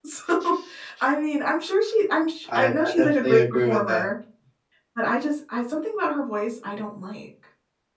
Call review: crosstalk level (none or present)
present